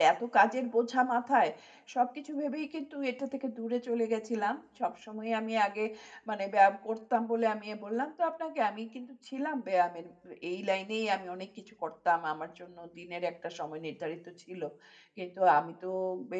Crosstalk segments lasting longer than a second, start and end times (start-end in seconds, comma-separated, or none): none